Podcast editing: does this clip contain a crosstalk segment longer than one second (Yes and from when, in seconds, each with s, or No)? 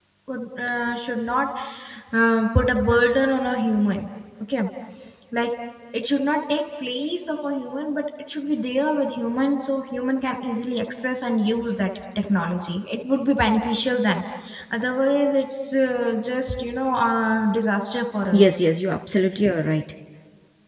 No